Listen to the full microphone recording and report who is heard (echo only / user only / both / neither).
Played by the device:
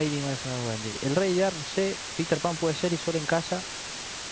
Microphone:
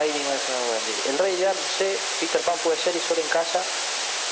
echo only